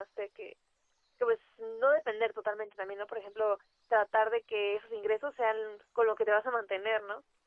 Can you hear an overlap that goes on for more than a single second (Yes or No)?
No